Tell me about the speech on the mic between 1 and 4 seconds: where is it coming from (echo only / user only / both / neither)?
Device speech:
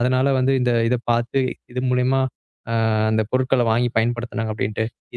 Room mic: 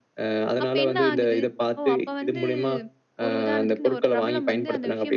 both